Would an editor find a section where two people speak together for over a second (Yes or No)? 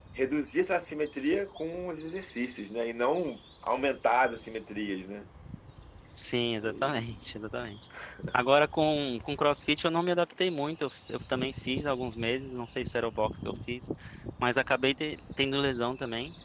No